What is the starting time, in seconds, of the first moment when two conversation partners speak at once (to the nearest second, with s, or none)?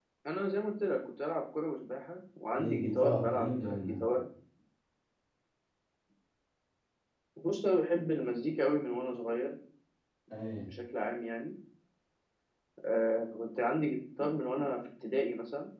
3 s